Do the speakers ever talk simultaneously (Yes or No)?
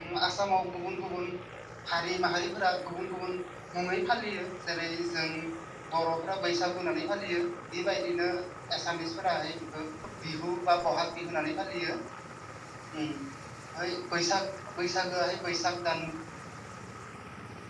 No